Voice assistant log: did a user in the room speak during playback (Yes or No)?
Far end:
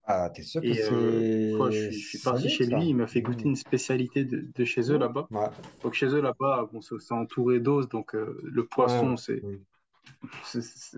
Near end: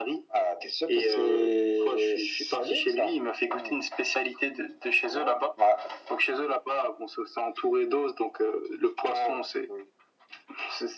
No